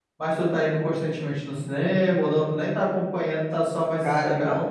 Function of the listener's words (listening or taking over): taking over